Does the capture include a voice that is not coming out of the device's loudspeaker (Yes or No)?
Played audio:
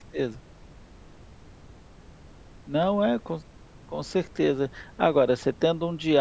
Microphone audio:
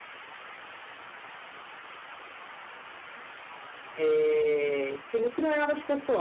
Yes